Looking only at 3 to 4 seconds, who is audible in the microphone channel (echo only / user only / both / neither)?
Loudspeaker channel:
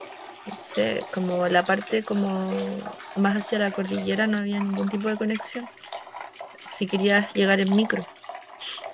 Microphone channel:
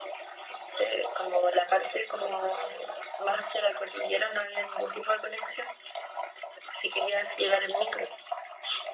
echo only